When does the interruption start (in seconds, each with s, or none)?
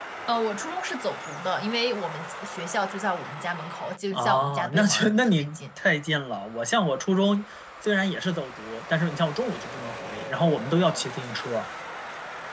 4.1 s